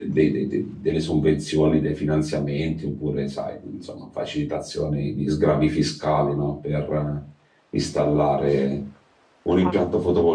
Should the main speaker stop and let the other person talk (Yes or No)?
No